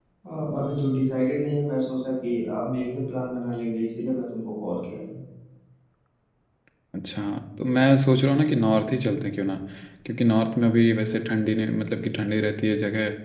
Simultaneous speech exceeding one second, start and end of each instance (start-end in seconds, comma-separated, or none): none